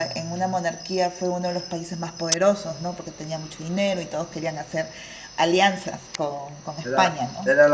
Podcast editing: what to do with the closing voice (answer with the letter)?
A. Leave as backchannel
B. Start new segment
B